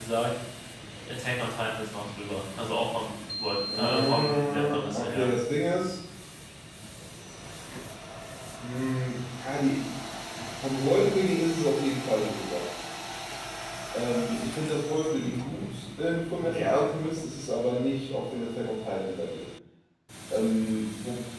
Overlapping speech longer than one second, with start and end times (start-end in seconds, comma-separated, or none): 3.7-5.3